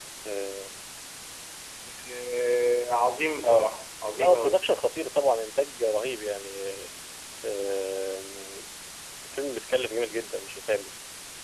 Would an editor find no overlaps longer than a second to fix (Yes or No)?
Yes